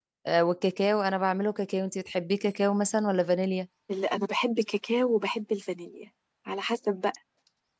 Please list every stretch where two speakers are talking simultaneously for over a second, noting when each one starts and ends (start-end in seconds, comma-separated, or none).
none